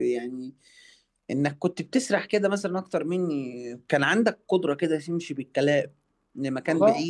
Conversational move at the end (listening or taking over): listening